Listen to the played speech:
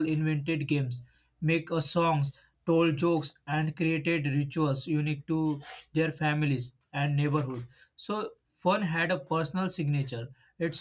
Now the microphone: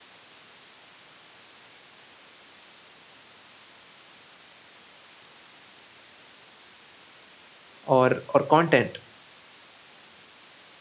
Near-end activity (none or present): present